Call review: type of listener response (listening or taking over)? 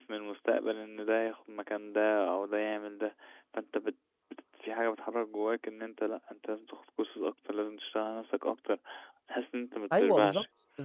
taking over